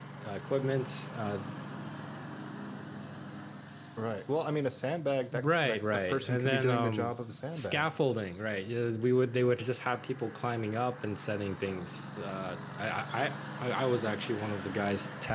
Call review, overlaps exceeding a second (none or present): present